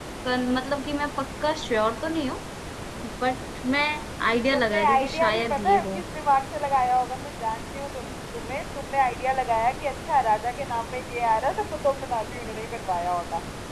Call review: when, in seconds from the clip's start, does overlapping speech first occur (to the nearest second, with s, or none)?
5 s